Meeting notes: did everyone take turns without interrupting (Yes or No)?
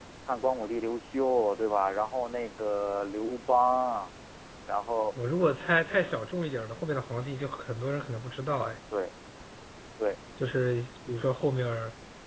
Yes